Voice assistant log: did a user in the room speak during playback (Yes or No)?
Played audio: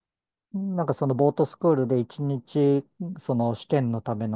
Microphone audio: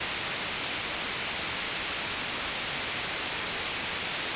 No